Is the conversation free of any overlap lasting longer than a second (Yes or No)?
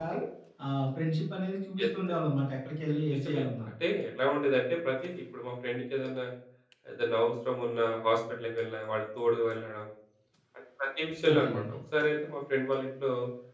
Yes